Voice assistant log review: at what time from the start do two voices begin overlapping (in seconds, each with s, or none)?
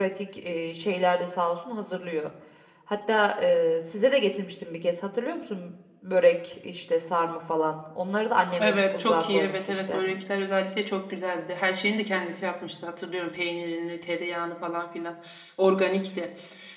8.6 s